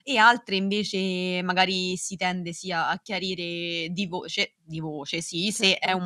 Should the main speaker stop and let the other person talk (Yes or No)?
No